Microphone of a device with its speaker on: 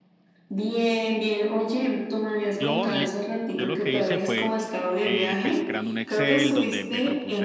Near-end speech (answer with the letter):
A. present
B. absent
A